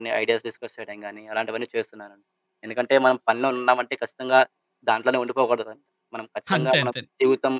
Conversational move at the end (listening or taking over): listening